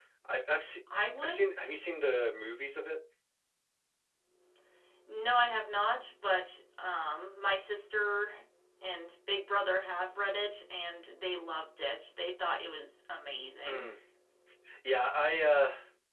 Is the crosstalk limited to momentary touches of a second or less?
Yes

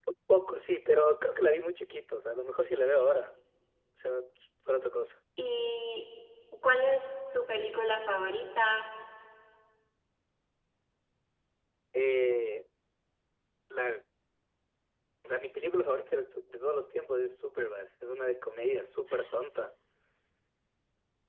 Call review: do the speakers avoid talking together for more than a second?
Yes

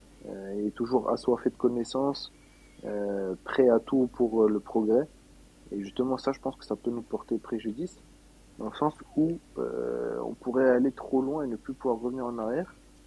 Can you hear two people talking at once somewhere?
No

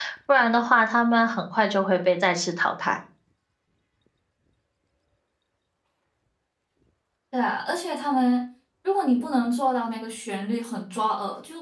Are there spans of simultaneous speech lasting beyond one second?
No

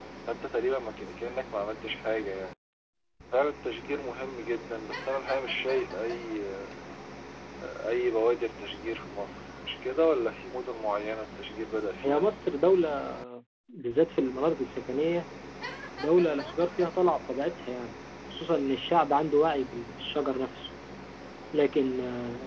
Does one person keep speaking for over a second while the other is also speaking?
No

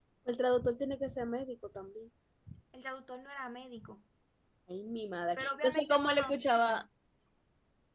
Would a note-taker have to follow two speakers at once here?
Yes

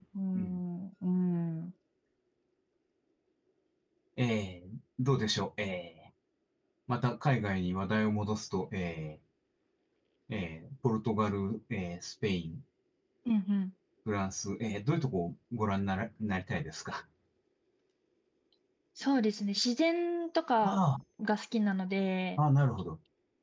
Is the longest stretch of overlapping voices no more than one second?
Yes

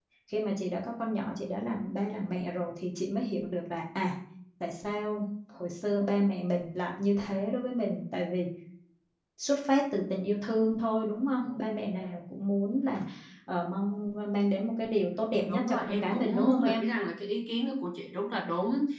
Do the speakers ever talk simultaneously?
Yes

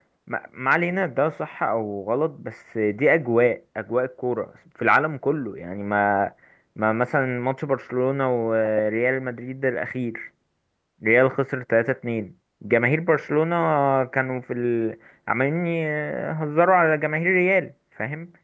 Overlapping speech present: No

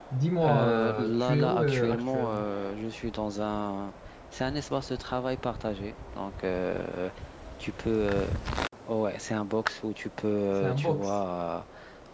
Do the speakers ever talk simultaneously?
Yes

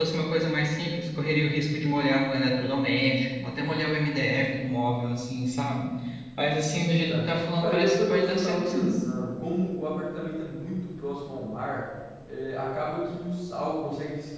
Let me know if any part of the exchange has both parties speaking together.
Yes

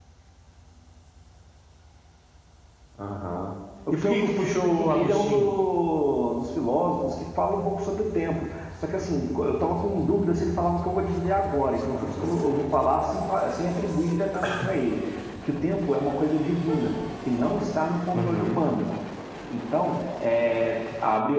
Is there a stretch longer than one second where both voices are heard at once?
Yes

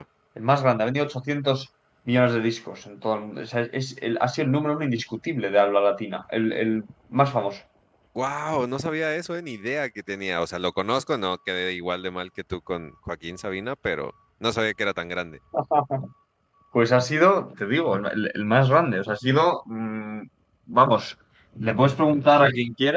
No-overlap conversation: Yes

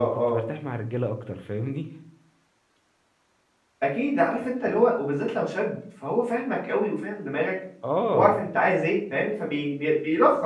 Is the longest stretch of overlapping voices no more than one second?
Yes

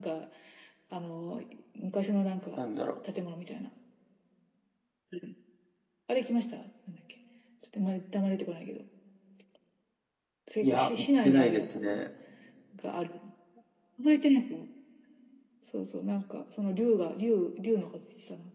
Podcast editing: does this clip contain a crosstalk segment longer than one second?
Yes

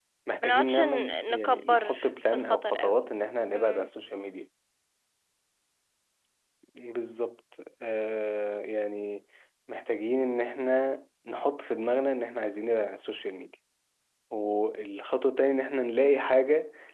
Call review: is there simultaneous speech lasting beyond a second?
Yes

